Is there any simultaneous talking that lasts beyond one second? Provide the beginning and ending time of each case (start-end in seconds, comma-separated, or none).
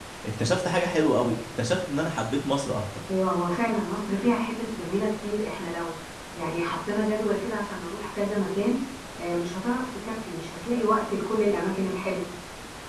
none